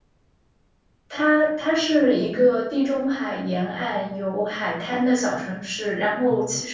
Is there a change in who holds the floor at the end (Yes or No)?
No